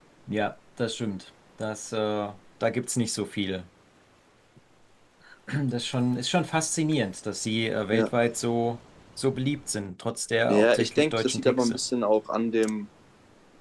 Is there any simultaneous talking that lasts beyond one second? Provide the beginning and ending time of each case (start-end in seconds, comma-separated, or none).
10.5-11.8